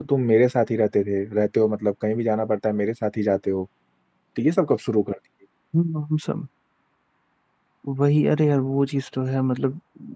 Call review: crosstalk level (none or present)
none